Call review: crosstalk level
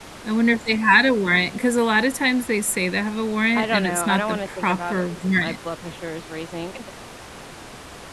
present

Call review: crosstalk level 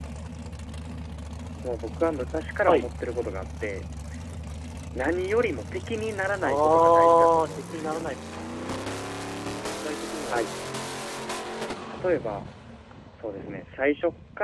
present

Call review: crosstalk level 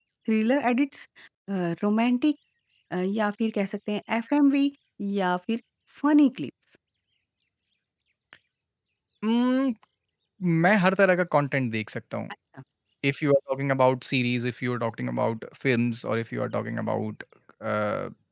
none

